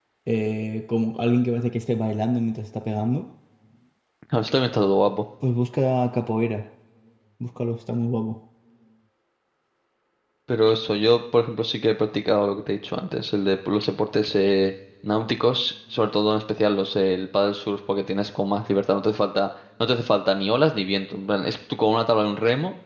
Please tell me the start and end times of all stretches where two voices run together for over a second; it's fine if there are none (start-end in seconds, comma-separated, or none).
none